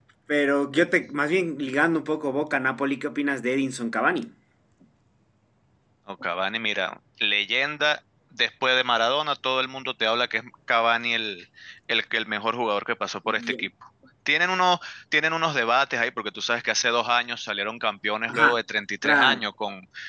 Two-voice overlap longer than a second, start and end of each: none

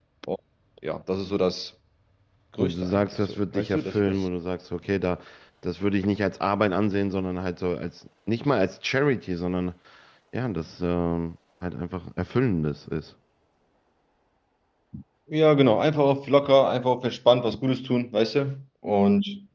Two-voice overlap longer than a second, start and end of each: 2.6-4.3

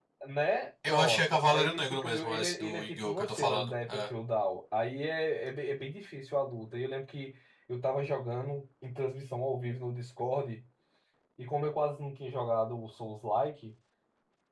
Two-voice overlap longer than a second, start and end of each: 0.9-4.0

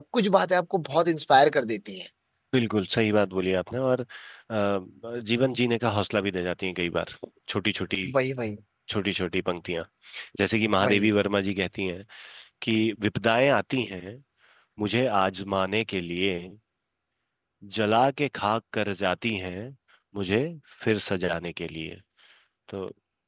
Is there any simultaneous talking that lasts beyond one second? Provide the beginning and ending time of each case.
none

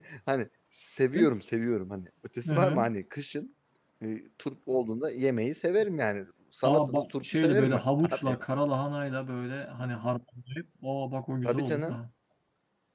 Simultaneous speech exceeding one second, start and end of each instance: 6.6-8.4

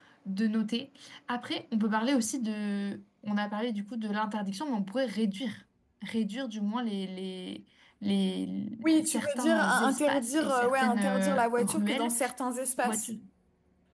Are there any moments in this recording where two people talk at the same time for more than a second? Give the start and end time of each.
8.8-12.1

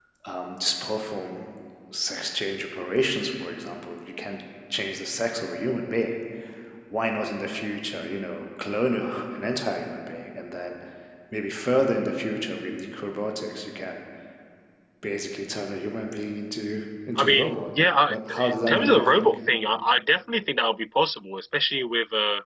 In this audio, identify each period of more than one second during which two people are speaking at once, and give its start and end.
18.1-19.4

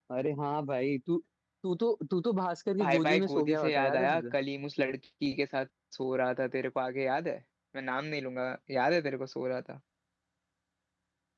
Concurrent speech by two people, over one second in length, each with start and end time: 2.8-4.3

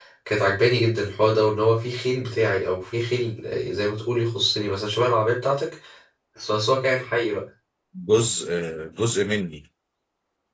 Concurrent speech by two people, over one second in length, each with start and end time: none

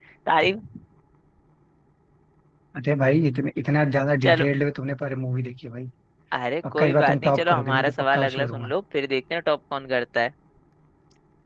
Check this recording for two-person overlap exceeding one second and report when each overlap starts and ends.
6.7-8.7

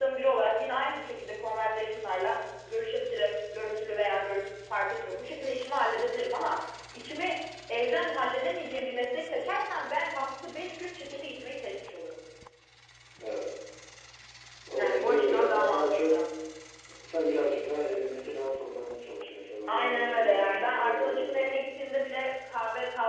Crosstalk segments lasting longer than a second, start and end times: 14.8-16.1, 19.7-21.4

